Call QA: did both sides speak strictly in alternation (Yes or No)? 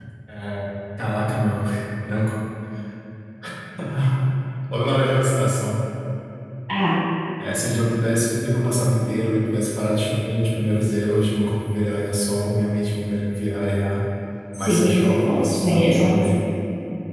No